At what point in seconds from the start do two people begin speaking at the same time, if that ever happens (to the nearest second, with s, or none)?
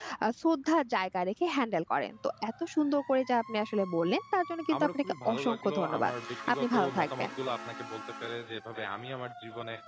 5 s